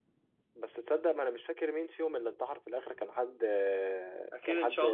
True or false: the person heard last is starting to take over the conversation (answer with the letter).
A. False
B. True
B